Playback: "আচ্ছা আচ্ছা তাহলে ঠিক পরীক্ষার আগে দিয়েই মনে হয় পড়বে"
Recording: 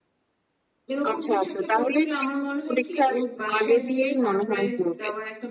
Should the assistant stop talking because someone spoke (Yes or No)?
Yes